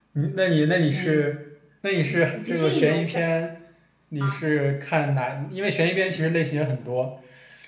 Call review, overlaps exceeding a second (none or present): present